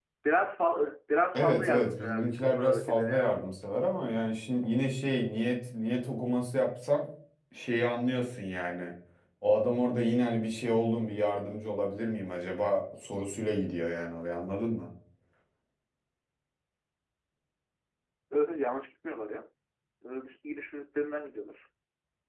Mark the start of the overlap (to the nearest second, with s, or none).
1 s